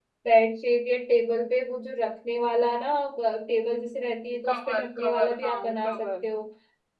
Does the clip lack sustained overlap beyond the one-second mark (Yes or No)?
No